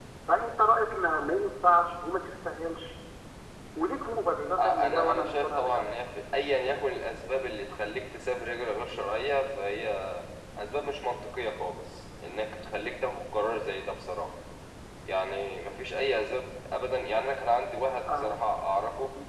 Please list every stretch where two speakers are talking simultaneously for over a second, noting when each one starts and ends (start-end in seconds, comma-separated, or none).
4.6-5.8